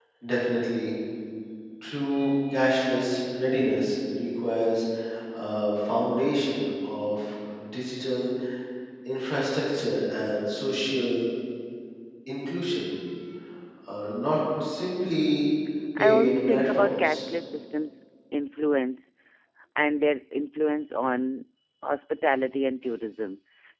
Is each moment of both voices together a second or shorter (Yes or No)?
No